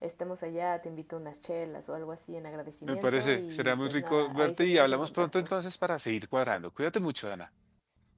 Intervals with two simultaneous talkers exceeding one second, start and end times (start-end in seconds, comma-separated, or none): 2.9-5.5